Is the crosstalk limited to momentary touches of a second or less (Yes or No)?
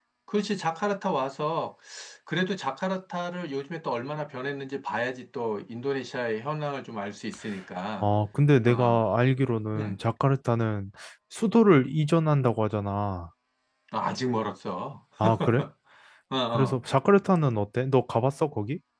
Yes